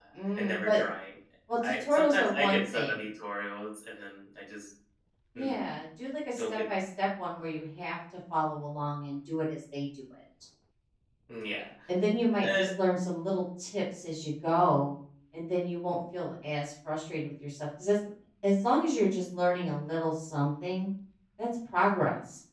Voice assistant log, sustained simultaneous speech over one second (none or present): present